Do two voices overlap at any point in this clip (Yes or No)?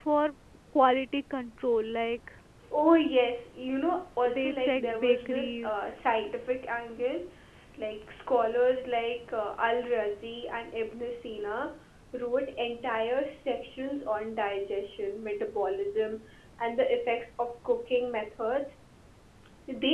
Yes